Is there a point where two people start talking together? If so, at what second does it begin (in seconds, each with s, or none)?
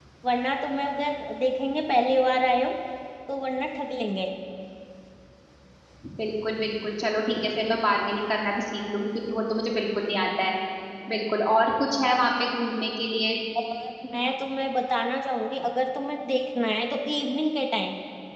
none